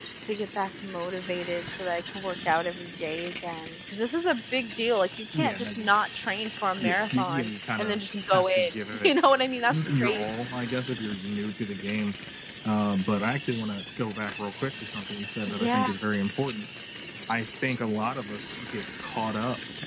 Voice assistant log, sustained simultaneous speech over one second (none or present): present